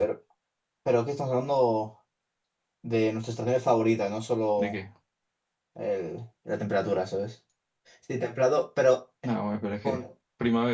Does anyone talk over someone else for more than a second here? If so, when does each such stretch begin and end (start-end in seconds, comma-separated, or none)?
none